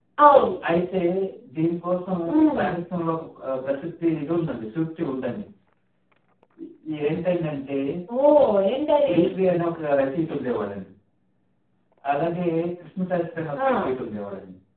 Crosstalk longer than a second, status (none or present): none